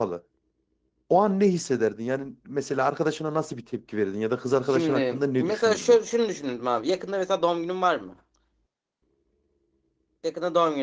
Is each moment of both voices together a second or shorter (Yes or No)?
No